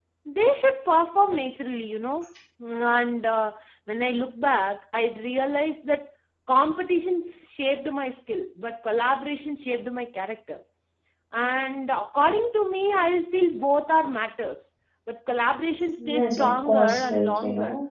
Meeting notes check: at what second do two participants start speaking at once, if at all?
16.0 s

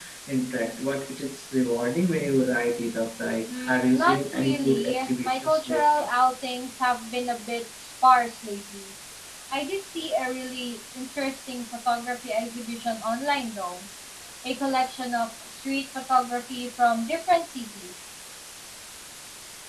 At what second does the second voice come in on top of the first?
3.5 s

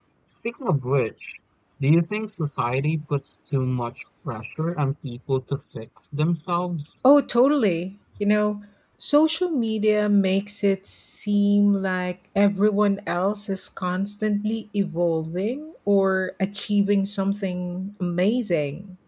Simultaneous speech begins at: none

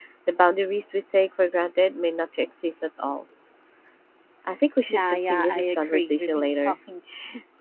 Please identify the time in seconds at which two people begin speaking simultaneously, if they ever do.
4.9 s

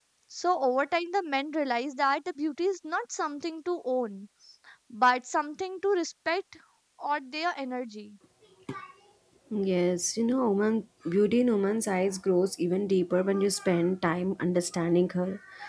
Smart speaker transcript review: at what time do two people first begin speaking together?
none

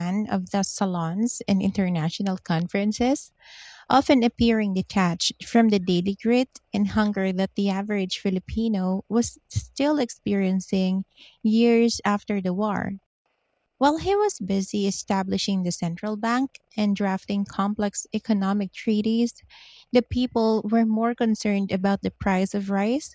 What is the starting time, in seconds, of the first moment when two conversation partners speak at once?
none

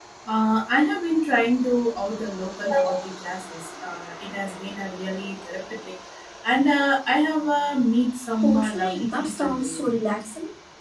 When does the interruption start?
8.4 s

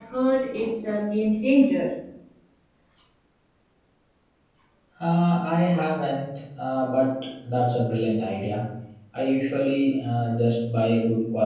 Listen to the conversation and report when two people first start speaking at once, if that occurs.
none

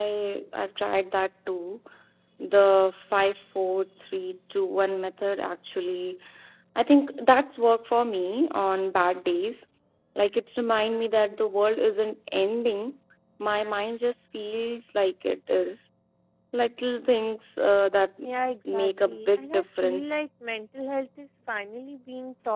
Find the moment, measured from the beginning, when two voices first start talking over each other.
18.7 s

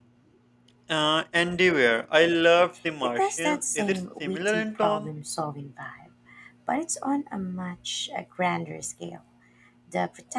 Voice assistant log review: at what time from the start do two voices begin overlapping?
3.0 s

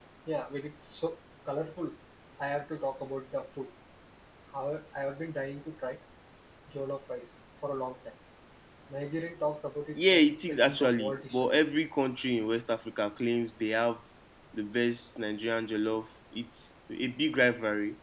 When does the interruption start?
10.0 s

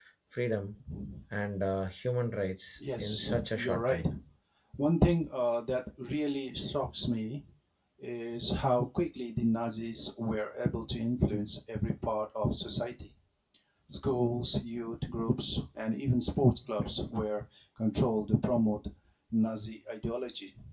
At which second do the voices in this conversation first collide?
2.8 s

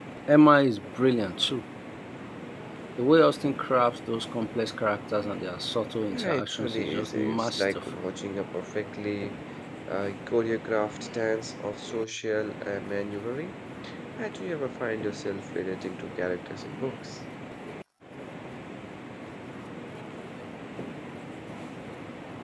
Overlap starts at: 6.1 s

